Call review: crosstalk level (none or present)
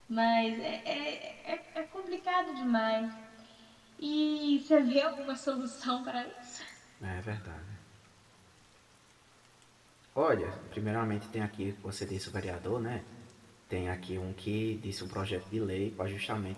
none